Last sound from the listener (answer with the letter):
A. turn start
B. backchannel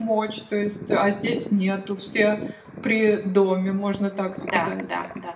A